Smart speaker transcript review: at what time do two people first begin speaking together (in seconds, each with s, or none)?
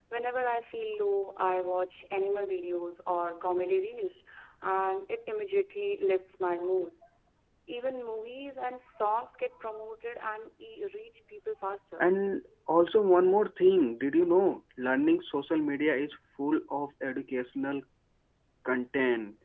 none